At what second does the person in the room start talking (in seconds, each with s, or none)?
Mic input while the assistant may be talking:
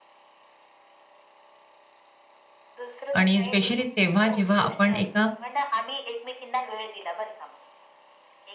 3.2 s